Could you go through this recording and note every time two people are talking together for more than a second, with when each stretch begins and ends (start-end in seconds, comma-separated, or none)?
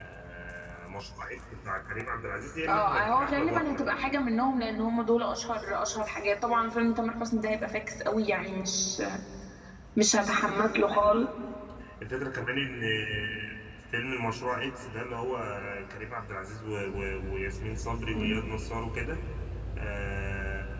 2.7-4.1